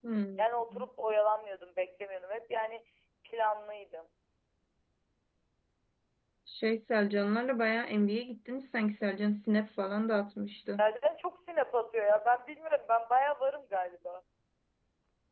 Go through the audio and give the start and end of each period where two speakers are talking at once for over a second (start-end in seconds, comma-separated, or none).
none